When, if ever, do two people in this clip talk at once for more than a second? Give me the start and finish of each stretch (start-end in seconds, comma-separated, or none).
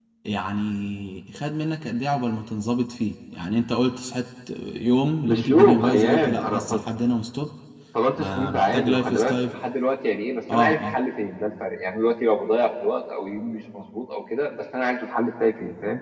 5.3-6.6, 8.2-9.6